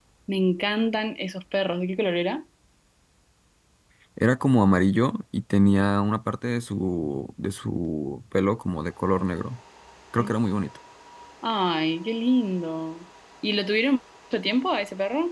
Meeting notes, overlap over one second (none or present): none